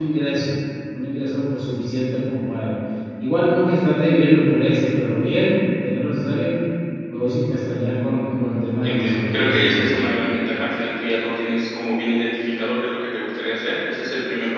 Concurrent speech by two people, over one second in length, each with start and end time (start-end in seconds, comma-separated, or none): 8.8-10.1